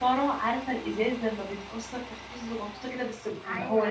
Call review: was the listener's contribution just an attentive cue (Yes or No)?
No